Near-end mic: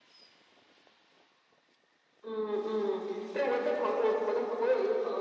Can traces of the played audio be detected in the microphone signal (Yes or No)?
Yes